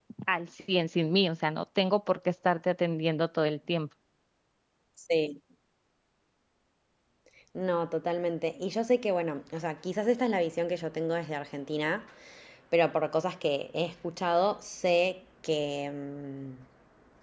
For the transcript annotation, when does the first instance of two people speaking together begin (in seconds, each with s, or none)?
none